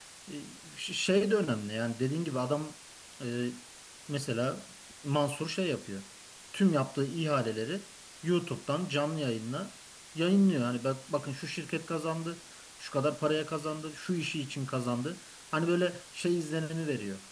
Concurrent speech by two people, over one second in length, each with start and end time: none

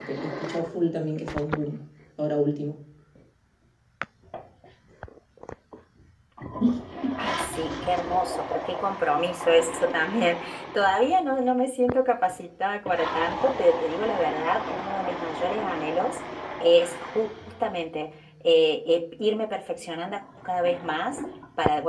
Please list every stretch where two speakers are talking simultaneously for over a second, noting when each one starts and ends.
none

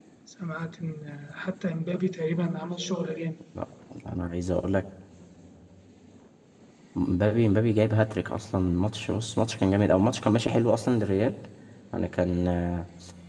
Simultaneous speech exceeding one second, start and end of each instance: none

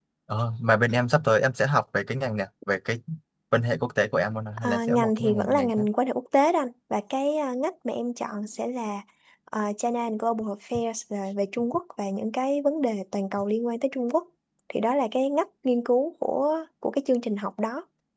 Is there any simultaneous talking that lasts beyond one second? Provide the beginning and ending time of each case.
4.6-5.8

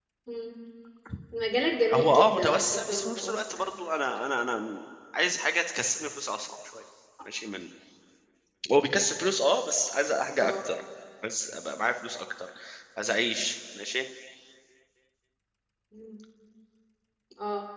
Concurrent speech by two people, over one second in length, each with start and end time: 1.9-3.7

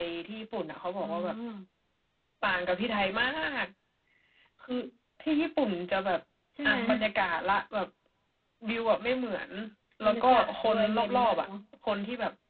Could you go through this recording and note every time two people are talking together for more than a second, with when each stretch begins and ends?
10.0-11.5

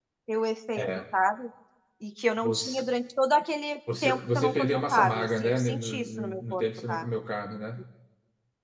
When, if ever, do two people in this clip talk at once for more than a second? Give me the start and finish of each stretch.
4.0-7.1

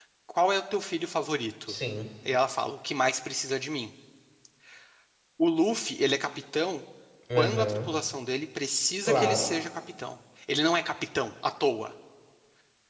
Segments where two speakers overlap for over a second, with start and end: none

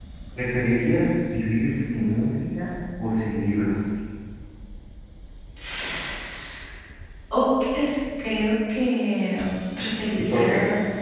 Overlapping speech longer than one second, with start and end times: none

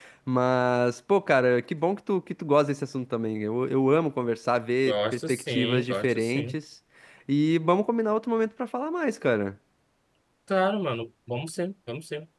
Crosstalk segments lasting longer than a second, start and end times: 4.9-6.5

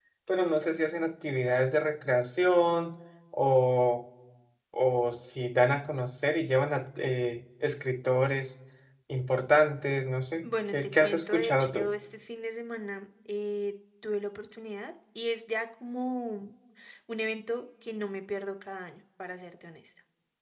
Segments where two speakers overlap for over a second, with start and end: 10.4-11.9

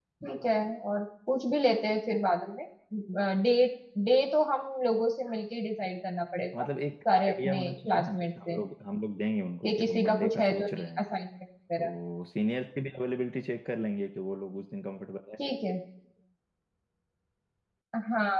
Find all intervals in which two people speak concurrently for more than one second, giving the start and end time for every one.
7.1-8.6, 9.6-11.0

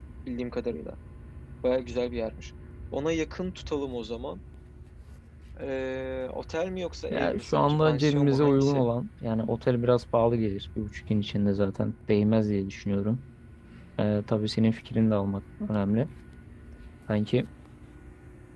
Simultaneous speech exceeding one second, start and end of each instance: 7.1-8.9

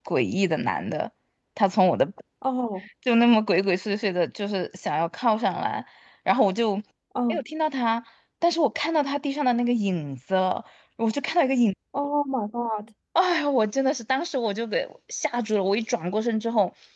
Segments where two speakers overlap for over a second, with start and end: none

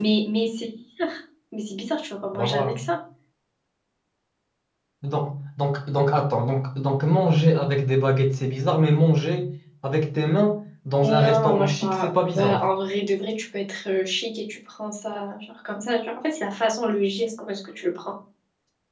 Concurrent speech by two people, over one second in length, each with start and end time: 11.0-12.6

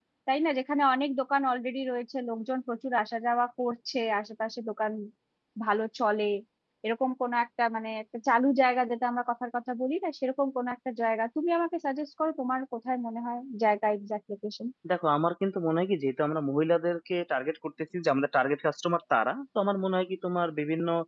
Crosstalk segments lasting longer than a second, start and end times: none

